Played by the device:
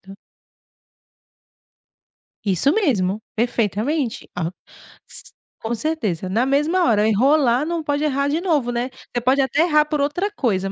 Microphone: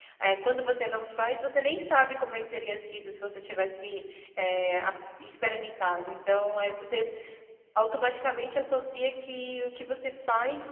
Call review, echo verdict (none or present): none